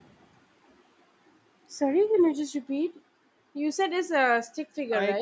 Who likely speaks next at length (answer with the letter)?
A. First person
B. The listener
B